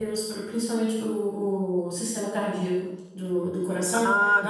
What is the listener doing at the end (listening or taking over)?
listening